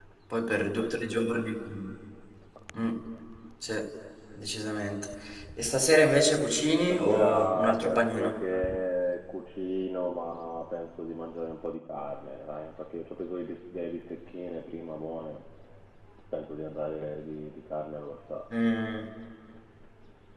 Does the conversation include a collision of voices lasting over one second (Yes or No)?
Yes